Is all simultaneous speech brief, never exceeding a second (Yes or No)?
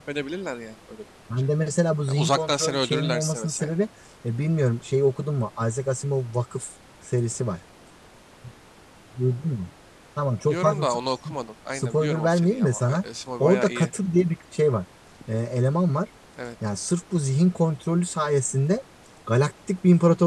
No